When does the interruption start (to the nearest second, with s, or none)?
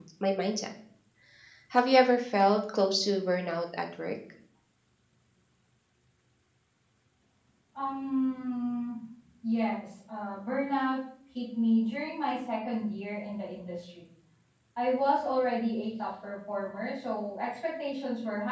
none